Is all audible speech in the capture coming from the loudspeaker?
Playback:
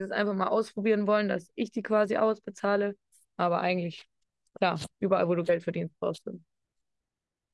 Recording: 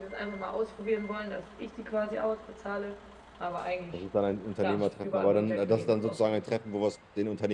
No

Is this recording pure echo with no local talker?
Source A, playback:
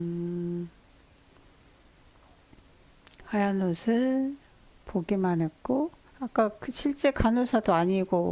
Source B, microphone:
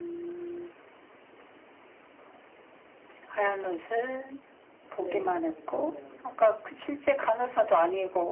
No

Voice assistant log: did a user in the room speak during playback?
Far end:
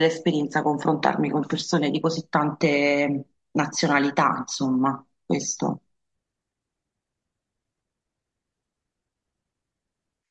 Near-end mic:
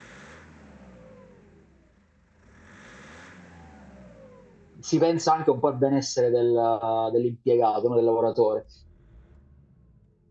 Yes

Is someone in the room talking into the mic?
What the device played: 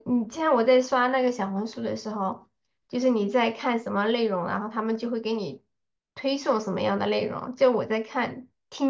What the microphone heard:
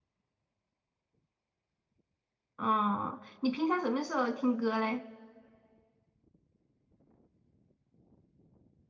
Yes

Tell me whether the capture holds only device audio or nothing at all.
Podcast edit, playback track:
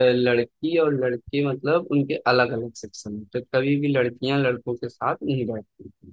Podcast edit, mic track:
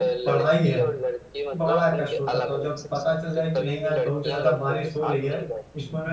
No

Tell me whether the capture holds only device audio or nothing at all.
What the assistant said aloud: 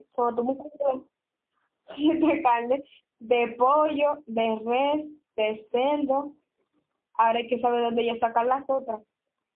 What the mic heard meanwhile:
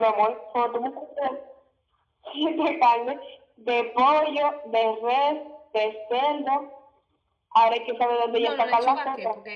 No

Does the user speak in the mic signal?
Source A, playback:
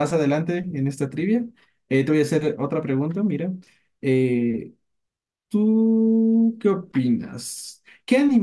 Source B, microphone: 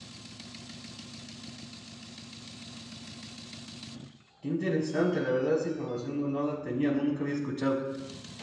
Yes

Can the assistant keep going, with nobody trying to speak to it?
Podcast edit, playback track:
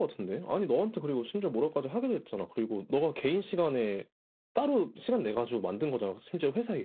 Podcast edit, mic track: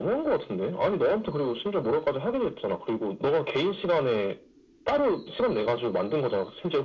Yes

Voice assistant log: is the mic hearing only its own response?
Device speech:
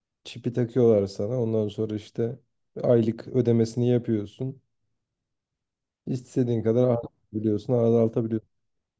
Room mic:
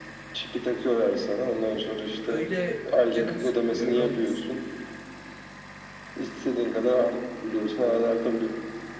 No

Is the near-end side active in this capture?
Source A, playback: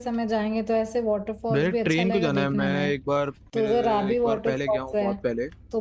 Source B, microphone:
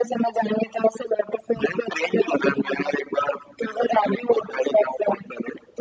No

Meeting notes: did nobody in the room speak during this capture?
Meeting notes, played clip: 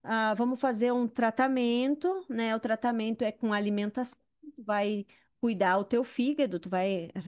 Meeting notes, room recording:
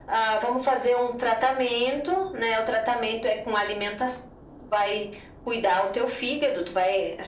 Yes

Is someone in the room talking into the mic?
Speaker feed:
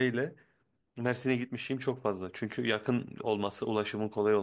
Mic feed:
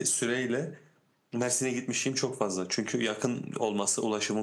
No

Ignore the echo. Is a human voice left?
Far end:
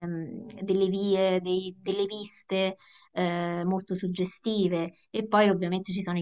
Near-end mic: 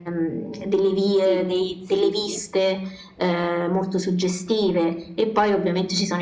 Yes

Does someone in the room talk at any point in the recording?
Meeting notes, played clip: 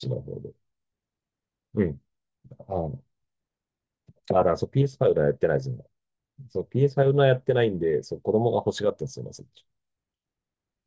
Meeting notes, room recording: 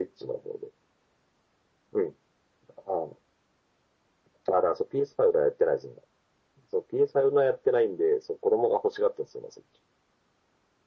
No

